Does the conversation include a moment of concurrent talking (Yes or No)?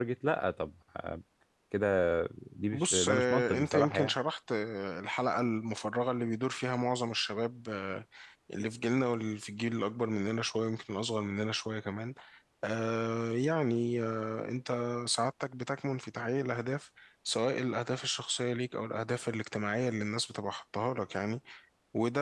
Yes